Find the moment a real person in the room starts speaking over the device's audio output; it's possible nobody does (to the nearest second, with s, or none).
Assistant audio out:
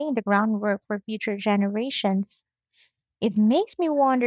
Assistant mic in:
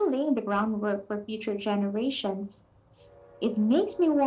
none